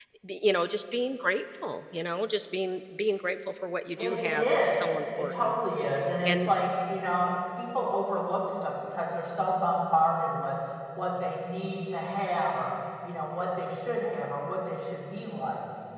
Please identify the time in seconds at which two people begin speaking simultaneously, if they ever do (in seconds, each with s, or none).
4.0 s